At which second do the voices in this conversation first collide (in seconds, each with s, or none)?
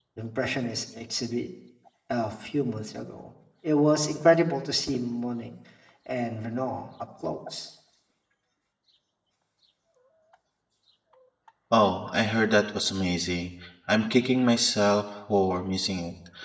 none